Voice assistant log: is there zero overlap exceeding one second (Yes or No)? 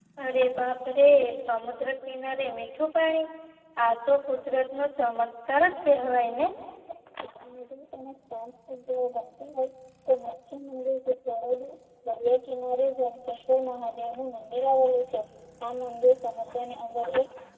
Yes